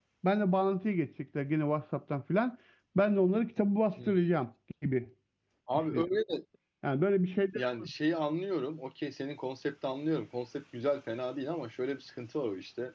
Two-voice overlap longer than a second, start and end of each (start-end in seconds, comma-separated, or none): none